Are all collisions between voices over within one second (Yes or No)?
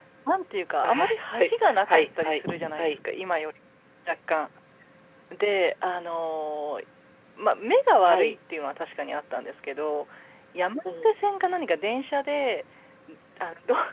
No